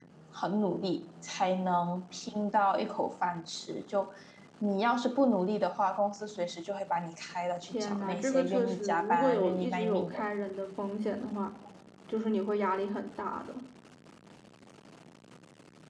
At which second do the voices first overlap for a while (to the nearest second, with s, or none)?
8 s